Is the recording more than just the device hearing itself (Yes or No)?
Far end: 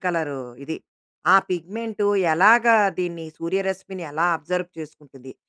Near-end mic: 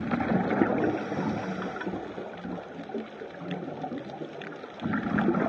No